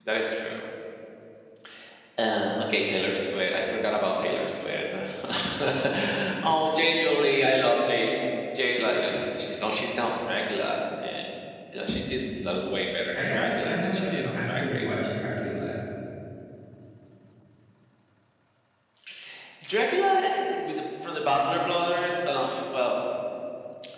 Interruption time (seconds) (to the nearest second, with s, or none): 13 s